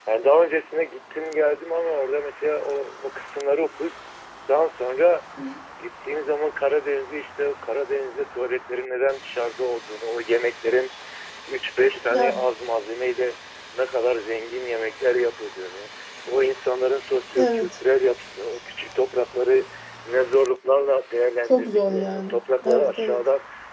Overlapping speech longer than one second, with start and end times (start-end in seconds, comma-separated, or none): 21.5-23.2